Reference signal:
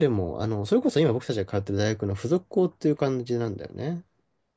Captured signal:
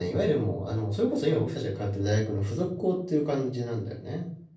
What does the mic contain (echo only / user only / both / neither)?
echo only